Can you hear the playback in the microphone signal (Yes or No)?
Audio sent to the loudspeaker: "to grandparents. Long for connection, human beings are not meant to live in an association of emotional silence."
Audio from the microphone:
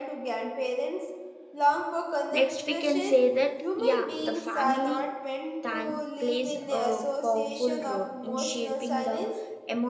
Yes